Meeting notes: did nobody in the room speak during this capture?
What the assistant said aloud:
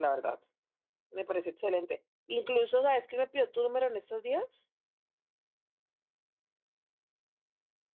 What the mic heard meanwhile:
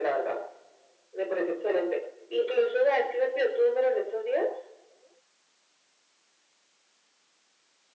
Yes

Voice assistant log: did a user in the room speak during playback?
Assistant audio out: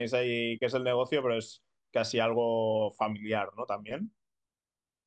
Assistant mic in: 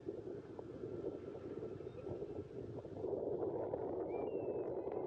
No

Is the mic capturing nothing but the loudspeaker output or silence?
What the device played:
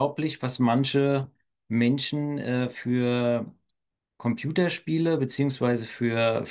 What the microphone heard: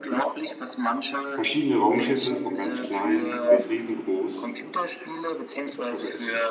No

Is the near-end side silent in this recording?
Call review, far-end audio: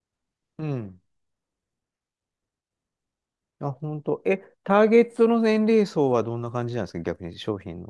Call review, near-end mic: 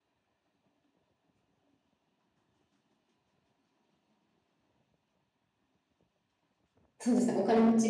No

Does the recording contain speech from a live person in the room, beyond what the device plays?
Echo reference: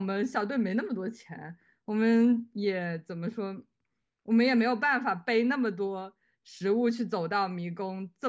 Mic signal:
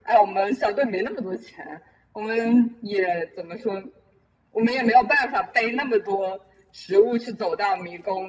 No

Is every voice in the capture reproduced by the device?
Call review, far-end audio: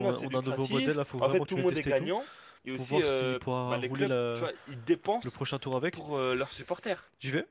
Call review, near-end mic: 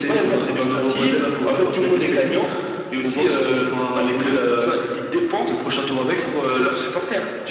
Yes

